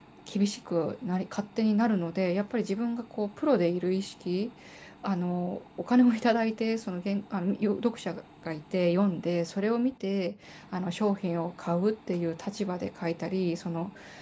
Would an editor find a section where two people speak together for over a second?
No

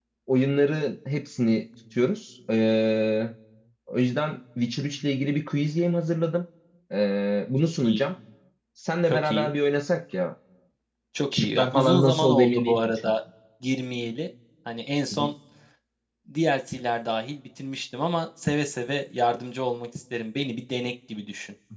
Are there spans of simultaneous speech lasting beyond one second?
Yes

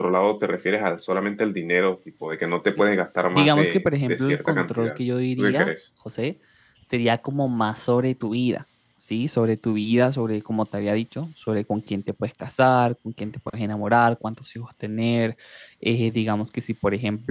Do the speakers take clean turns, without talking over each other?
No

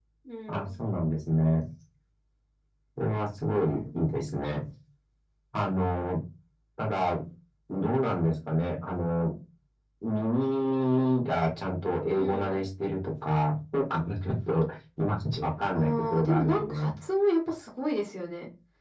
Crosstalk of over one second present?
Yes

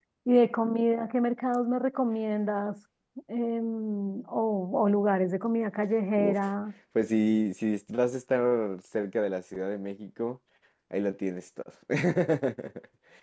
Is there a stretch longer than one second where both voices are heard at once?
No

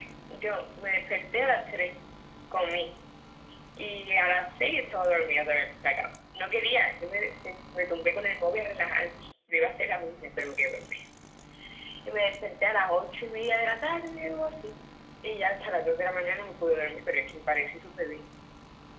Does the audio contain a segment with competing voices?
No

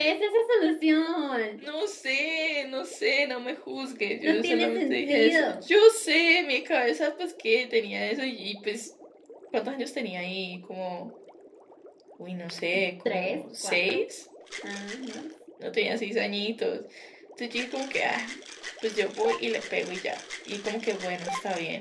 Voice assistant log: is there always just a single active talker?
No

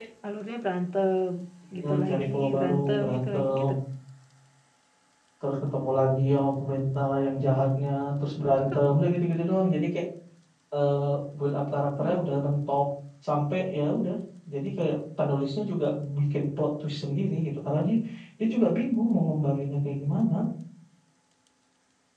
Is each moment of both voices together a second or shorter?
No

